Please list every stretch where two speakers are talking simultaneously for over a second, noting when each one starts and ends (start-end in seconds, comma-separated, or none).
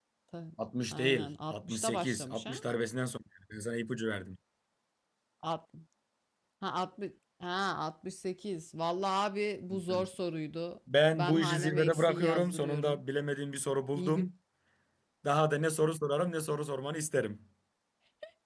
0.9-2.6, 11.1-13.0